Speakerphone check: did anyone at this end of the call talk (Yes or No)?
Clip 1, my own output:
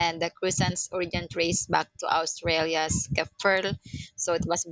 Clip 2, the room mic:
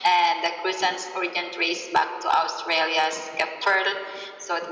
No